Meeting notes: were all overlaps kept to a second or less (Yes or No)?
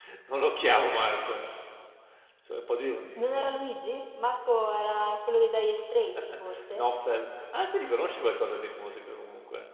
Yes